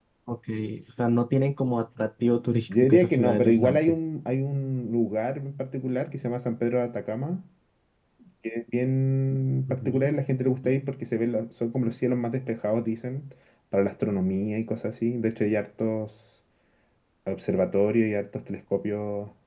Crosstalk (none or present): present